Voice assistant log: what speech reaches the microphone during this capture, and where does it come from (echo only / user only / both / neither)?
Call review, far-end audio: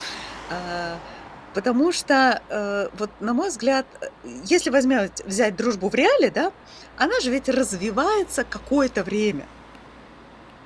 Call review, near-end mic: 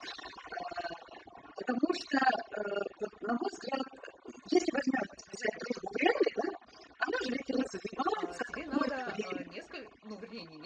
both